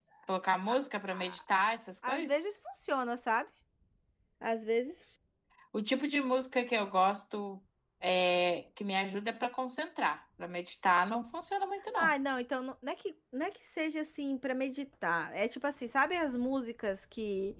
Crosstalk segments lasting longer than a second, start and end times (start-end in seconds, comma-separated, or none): none